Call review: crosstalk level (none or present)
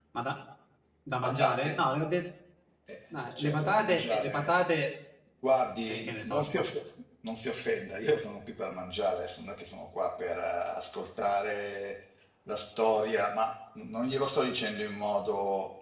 present